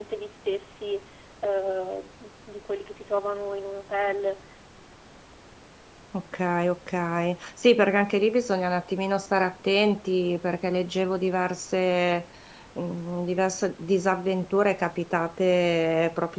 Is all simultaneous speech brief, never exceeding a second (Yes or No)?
Yes